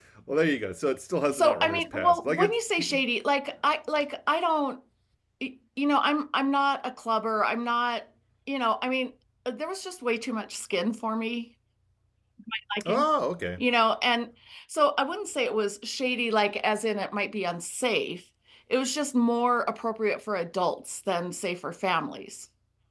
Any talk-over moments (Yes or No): Yes